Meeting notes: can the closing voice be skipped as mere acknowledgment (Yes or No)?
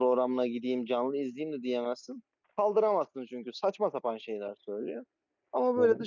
Yes